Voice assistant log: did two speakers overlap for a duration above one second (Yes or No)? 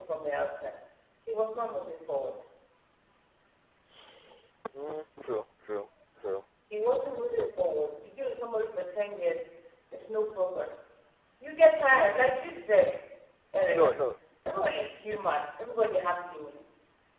No